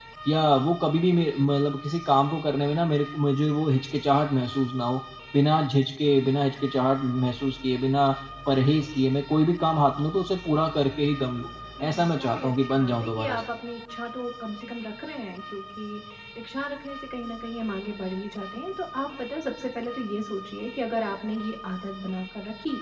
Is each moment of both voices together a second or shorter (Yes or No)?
No